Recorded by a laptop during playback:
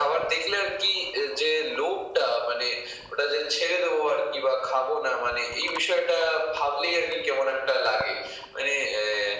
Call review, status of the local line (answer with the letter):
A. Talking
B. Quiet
B